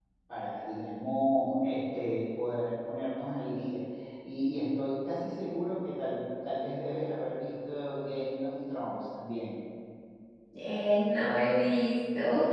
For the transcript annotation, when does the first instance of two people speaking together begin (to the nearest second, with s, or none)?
none